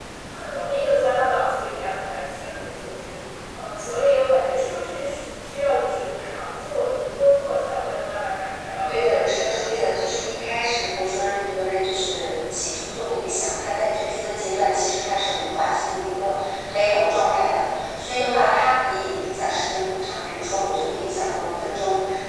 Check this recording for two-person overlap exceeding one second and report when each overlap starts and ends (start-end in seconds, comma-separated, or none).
8.9-10.4